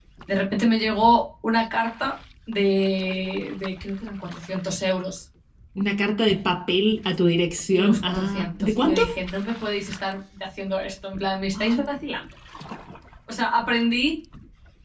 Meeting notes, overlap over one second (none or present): present